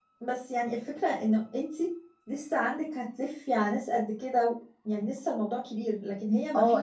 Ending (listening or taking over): taking over